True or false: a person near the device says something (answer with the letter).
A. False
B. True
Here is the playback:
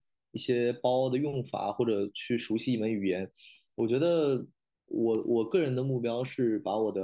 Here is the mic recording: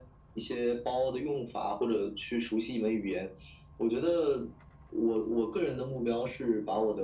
A